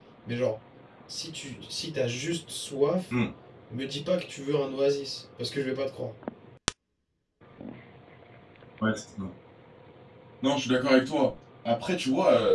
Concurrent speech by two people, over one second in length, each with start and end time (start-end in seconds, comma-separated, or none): none